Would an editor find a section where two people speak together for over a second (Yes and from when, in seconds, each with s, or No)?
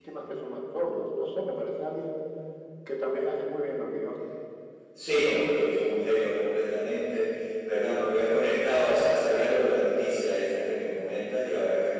No